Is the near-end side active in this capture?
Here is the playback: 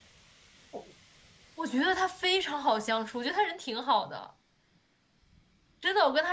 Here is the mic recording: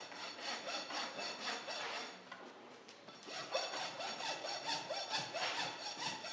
No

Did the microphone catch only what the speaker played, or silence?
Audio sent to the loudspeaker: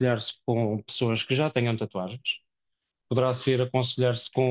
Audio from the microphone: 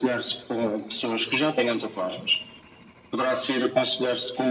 Yes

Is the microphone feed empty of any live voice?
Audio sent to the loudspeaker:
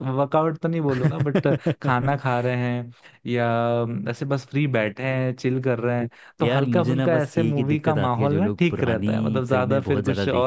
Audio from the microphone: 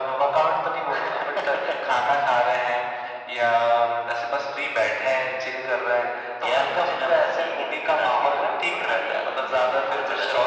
Yes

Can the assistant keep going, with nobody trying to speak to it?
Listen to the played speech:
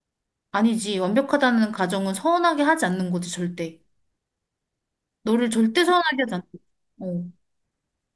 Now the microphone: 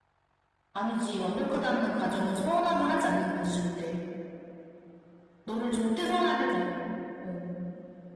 Yes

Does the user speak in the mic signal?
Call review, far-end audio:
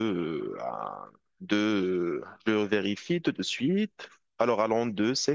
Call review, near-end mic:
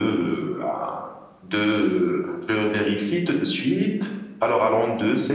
No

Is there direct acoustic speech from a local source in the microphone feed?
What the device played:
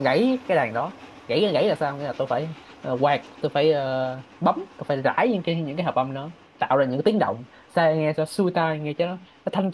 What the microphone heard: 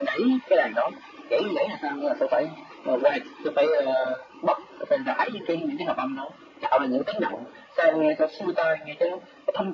No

